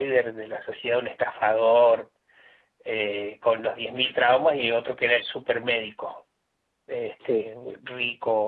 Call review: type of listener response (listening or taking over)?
listening